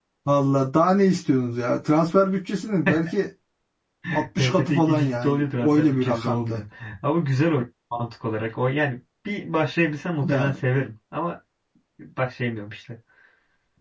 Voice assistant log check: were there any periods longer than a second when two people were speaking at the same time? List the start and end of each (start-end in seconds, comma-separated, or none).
4.4-6.6